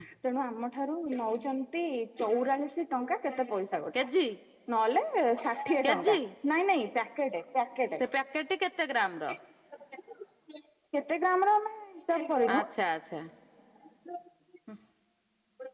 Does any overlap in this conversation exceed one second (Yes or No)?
No